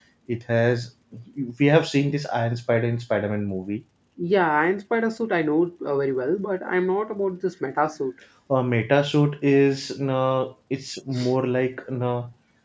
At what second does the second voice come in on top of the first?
none

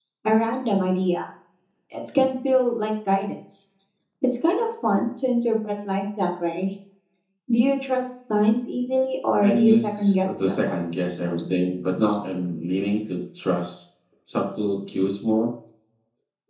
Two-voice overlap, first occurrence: 9 s

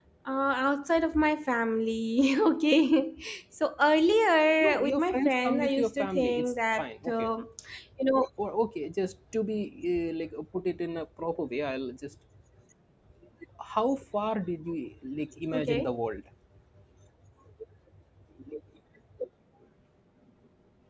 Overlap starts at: 5 s

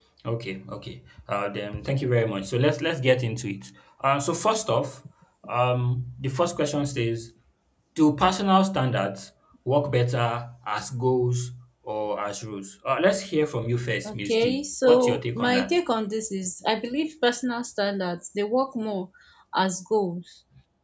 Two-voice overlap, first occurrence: 14 s

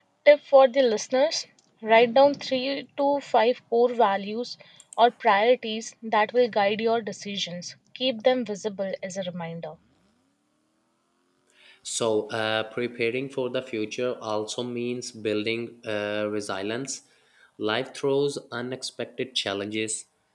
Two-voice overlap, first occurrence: none

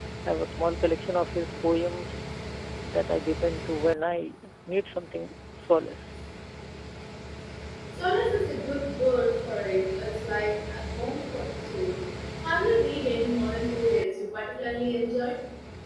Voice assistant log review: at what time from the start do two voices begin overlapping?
none

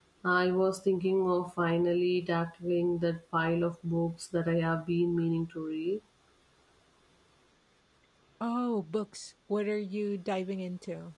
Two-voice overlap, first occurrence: none

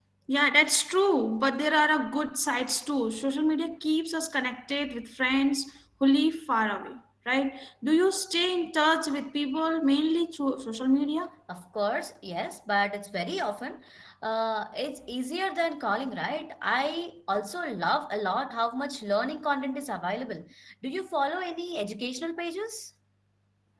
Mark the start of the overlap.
none

